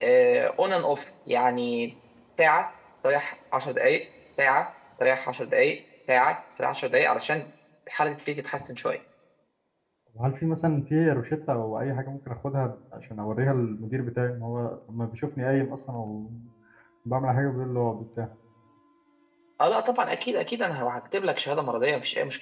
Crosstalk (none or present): none